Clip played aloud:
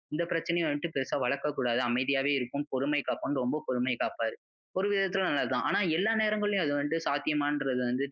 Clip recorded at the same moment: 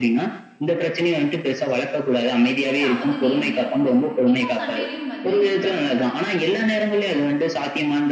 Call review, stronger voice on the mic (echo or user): echo